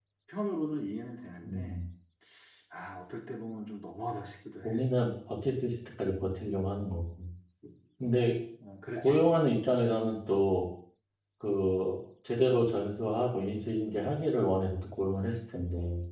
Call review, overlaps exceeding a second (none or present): none